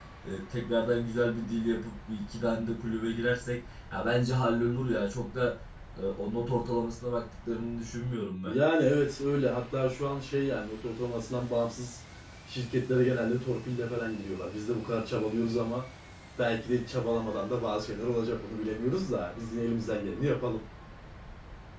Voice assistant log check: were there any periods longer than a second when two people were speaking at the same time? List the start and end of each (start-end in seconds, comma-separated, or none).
none